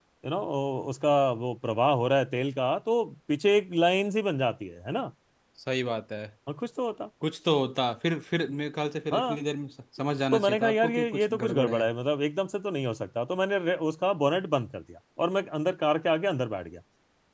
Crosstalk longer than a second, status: present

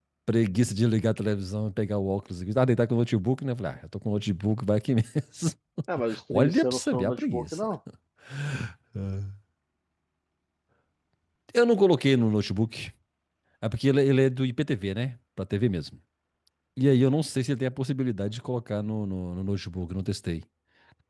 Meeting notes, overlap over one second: present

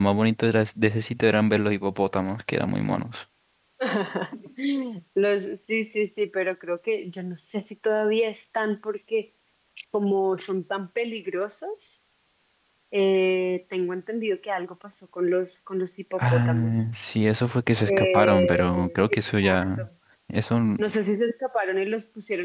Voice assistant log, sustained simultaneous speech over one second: present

